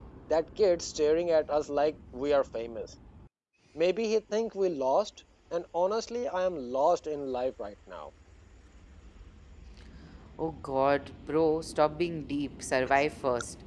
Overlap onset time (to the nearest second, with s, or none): none